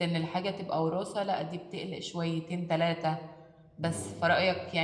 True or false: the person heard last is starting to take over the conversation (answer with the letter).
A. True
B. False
B